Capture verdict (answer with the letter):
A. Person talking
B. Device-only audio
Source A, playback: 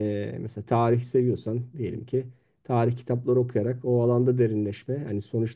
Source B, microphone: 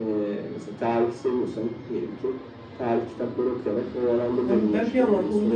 A